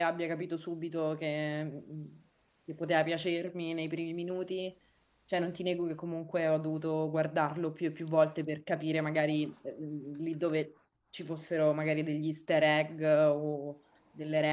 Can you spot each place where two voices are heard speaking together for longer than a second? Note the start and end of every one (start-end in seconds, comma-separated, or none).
none